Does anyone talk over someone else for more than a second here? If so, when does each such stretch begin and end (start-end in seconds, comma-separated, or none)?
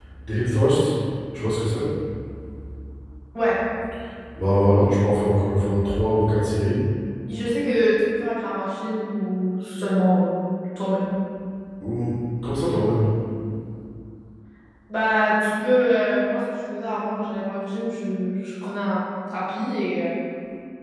none